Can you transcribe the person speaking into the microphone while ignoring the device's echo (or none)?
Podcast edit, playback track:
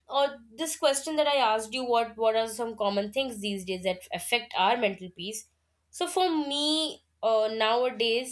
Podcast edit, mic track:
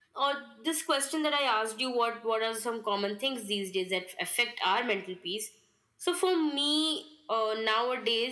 none